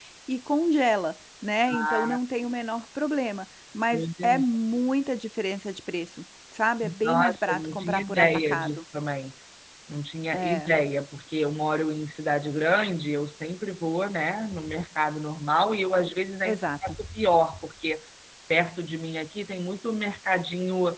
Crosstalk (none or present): present